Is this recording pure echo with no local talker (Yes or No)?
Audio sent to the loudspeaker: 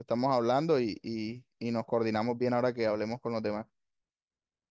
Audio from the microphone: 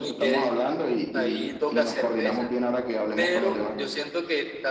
No